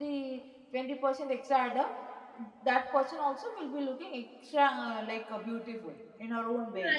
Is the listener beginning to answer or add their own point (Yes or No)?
Yes